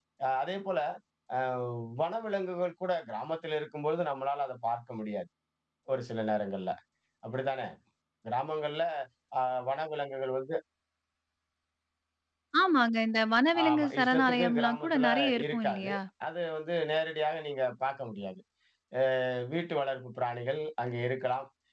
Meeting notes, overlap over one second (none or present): present